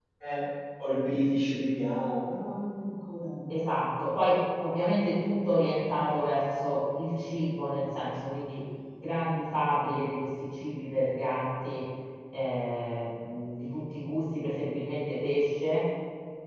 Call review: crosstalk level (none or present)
none